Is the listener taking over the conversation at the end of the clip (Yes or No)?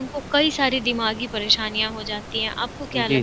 Yes